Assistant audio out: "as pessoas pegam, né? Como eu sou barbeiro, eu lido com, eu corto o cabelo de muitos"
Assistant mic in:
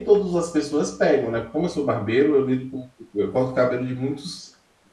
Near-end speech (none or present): none